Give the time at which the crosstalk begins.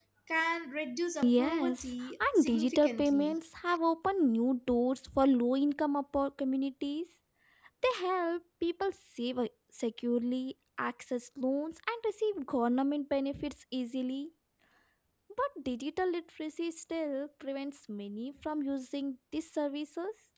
1.2 s

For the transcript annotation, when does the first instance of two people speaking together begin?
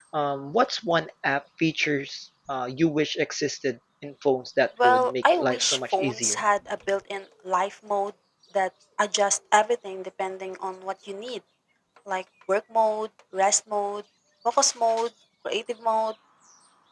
4.8 s

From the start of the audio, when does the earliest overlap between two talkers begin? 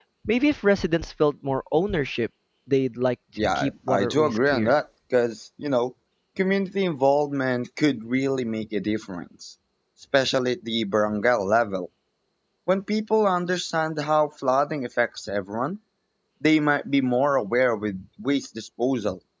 3.4 s

